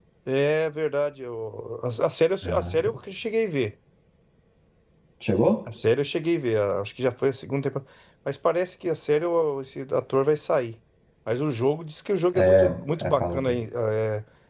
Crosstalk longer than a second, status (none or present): present